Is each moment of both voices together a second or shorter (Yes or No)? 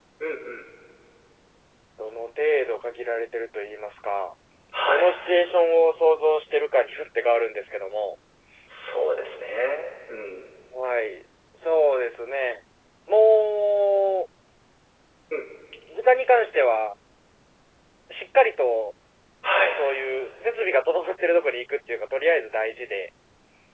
Yes